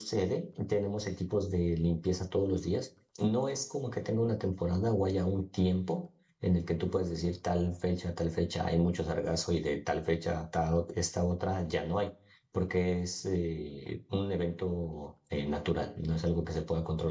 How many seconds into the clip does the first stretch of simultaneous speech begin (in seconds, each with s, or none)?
none